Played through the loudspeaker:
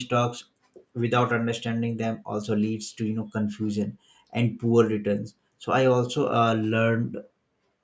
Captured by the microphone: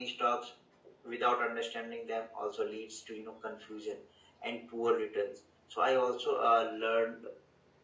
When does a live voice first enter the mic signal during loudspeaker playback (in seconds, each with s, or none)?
none